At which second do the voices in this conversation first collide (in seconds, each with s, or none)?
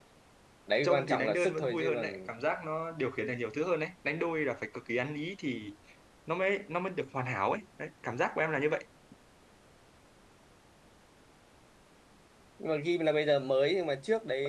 0.8 s